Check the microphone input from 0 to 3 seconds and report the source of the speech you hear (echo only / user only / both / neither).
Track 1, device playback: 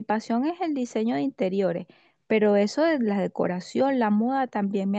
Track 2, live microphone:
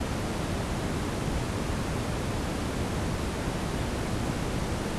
neither